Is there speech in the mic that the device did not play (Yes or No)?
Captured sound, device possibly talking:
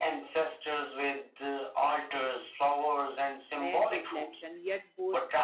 Yes